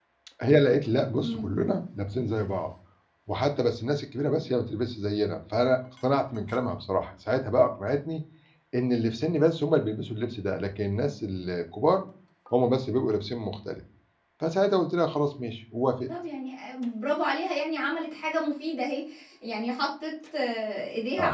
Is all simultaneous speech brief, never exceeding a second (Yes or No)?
Yes